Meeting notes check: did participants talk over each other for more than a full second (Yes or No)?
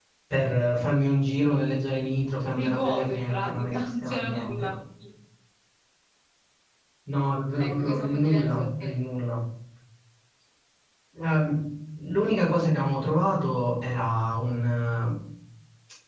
Yes